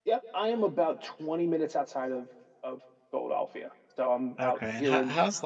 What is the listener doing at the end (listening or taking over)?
taking over